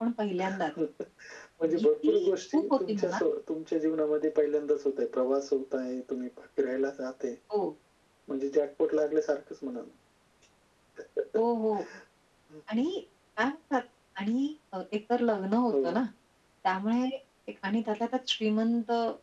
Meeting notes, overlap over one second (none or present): present